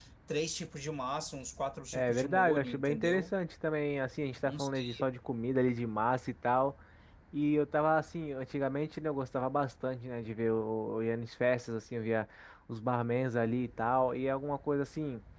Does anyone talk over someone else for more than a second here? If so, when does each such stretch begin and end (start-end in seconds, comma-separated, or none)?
1.9-3.2